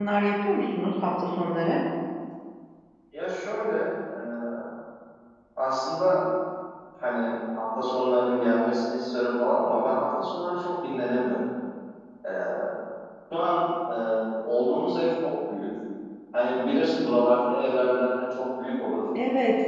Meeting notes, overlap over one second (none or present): none